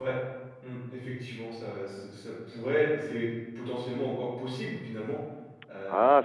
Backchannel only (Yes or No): No